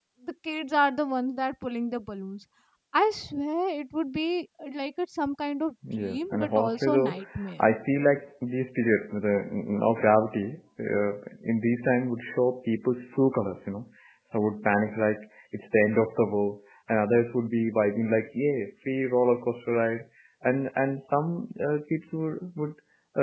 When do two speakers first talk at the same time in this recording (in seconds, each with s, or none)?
5.8 s